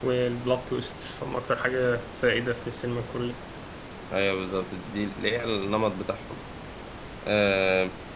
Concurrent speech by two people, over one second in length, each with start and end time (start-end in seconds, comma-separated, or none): none